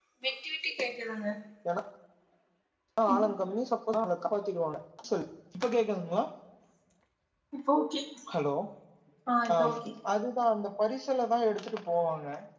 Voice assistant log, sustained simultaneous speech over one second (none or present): none